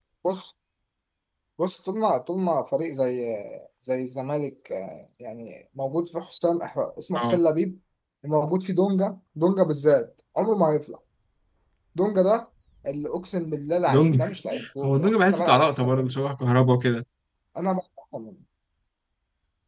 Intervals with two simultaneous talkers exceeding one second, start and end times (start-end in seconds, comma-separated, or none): 14.8-16.1